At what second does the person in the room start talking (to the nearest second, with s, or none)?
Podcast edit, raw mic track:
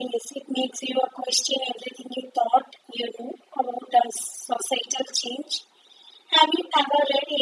none